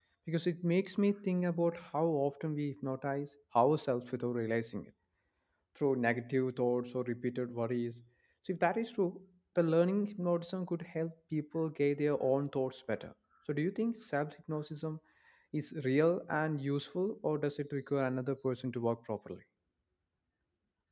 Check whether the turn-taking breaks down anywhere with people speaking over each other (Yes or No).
No